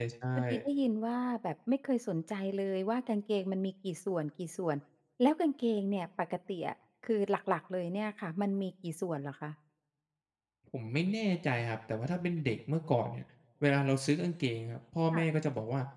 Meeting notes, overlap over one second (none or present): none